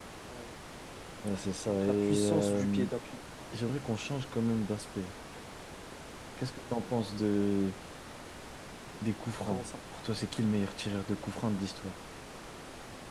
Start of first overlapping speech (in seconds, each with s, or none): 1.7 s